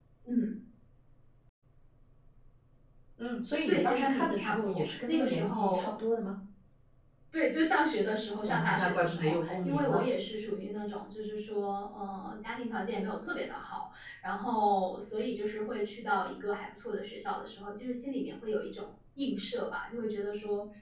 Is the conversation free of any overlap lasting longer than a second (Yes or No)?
No